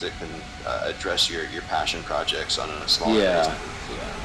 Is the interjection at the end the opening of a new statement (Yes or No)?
Yes